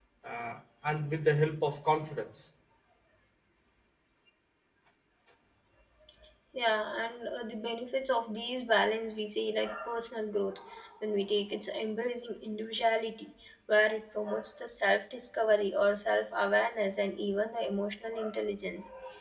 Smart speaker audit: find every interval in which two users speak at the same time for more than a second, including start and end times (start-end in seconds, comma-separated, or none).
none